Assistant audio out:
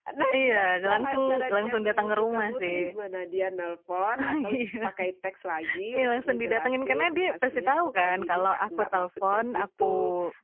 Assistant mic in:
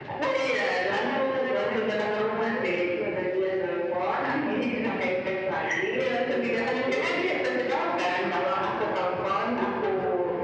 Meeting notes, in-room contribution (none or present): none